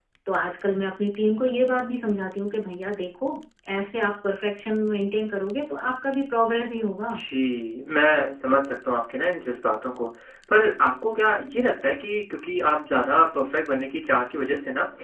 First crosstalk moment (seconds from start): none

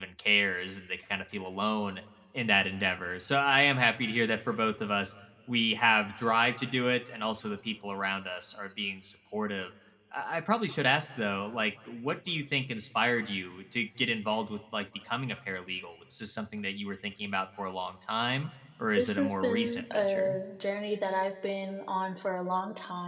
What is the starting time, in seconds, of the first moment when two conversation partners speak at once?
19.0 s

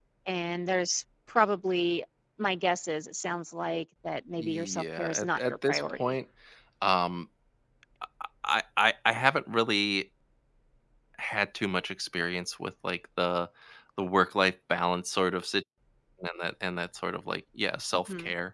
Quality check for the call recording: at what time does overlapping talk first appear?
4.4 s

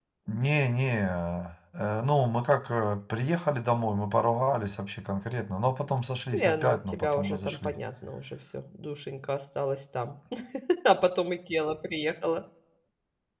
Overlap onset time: 6.3 s

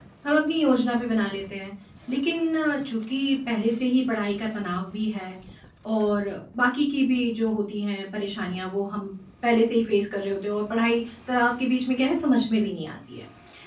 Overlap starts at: none

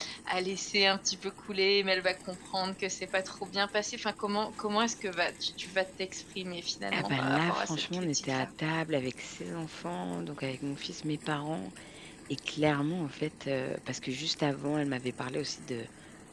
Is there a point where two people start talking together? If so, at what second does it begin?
6.9 s

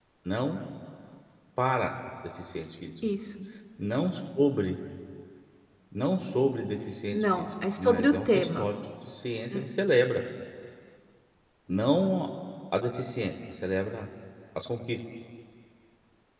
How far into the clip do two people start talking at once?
7.1 s

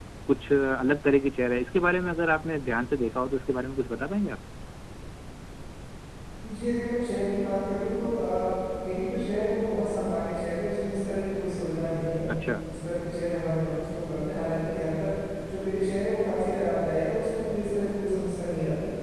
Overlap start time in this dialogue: none

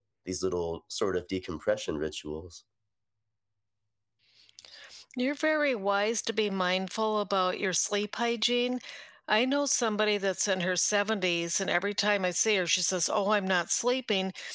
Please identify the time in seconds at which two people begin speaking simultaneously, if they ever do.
none

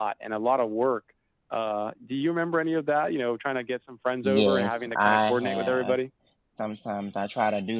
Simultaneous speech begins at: 4.2 s

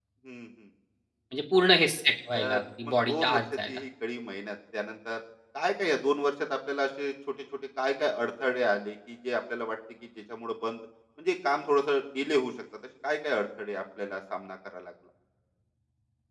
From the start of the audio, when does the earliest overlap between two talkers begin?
2.3 s

